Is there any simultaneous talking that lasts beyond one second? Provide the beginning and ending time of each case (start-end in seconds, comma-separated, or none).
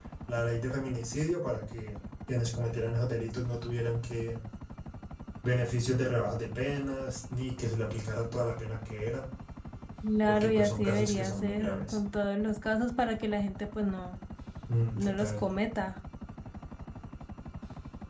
10.3-12.0